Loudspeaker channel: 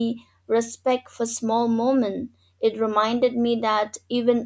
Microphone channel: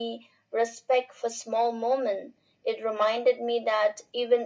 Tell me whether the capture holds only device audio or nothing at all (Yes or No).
Yes